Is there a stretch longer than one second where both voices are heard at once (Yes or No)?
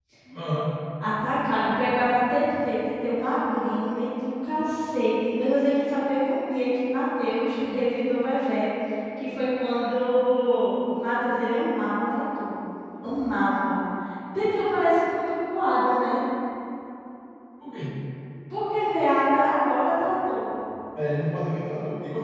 No